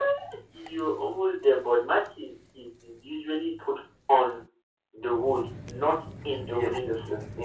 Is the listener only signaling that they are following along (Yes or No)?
No